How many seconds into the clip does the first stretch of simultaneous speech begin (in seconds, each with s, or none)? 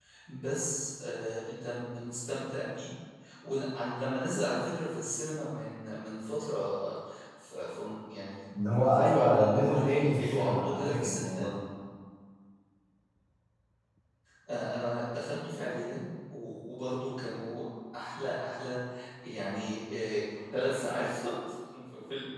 8.5 s